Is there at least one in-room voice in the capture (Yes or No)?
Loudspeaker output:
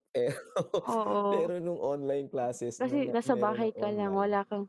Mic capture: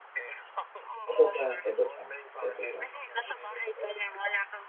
Yes